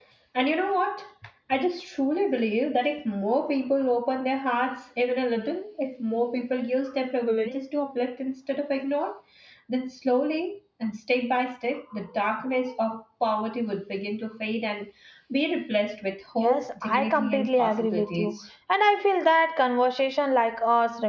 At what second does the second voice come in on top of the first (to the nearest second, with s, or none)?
16 s